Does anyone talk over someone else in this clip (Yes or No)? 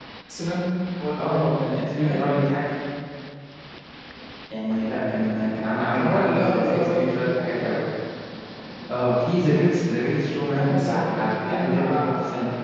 Yes